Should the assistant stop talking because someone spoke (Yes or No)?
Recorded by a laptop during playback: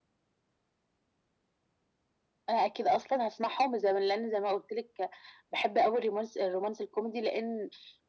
No